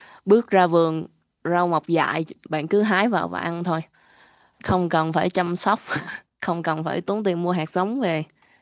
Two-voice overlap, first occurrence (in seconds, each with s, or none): none